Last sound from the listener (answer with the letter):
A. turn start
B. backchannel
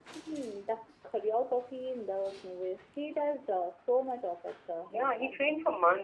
A